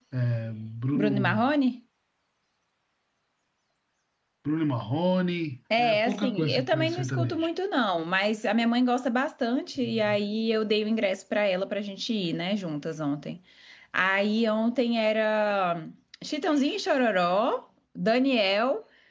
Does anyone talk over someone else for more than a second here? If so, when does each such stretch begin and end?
5.8-7.5

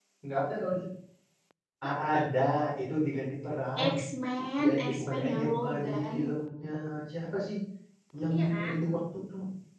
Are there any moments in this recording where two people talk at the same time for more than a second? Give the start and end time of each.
4.6-6.3

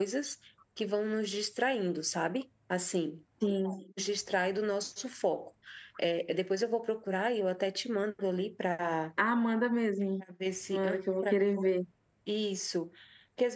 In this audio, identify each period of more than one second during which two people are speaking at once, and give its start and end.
none

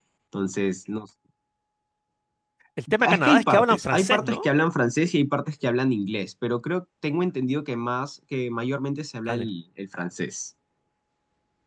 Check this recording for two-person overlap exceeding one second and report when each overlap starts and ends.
3.0-4.4

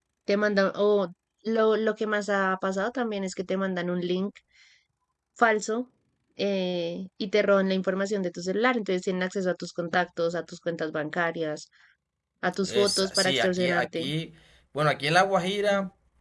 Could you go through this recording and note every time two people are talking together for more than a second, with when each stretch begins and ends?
12.7-14.1

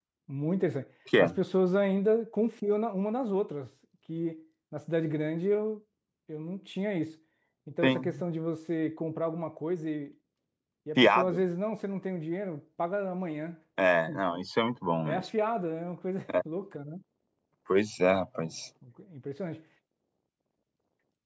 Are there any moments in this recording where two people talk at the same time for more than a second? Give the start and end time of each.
none

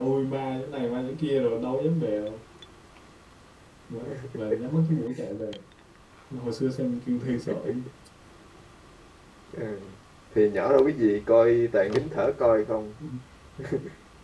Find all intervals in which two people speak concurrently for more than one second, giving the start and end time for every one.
none

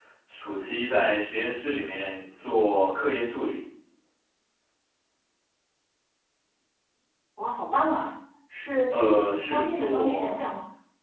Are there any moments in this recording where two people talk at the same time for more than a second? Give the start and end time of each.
8.9-10.4

